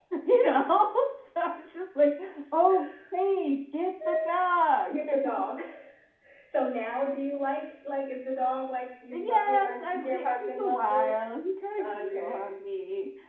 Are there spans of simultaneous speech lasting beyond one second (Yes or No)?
Yes